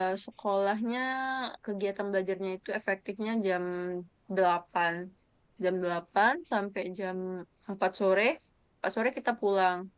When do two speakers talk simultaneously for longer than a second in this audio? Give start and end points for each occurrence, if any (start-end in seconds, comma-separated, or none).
none